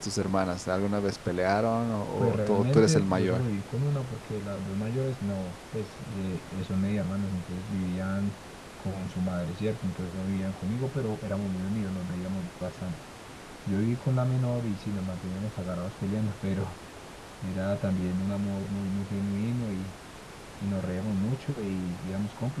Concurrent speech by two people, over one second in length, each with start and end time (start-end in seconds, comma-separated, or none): 2.2-3.5